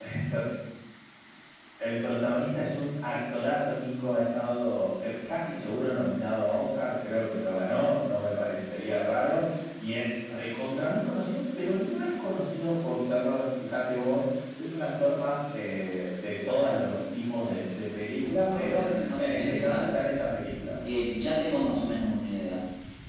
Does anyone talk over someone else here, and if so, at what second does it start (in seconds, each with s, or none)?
18.5 s